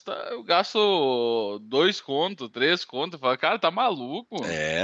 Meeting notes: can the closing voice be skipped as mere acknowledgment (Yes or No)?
No